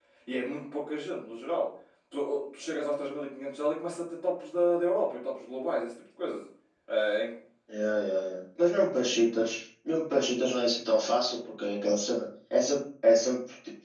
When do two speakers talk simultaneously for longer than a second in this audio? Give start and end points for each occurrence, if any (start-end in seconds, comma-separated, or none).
none